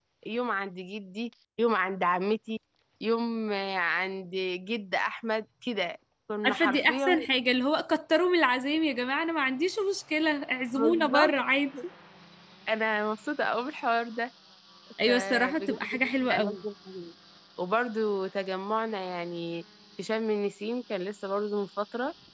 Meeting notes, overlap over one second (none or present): present